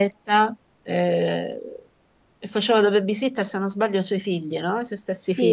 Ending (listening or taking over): taking over